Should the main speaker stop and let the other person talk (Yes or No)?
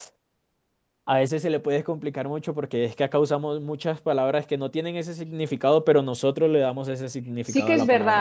Yes